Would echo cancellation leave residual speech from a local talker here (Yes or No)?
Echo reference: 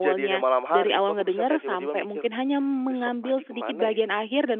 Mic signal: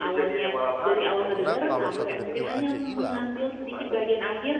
Yes